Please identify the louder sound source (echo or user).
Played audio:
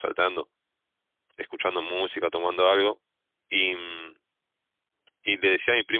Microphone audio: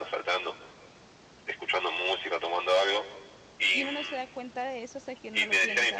echo